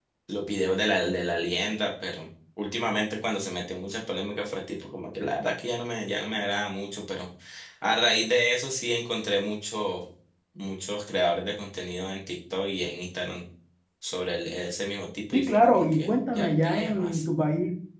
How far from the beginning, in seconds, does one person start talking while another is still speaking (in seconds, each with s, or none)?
15.3 s